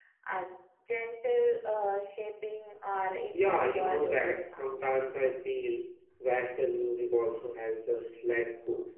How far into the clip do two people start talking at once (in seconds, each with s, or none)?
3.3 s